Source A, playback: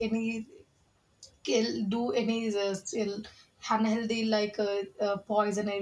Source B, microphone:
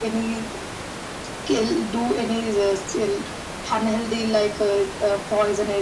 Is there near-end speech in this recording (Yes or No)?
No